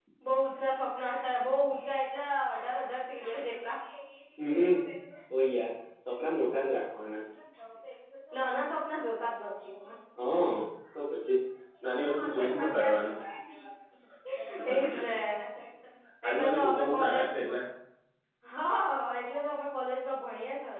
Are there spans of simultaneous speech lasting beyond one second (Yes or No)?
Yes